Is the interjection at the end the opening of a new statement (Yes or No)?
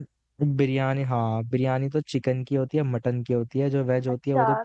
Yes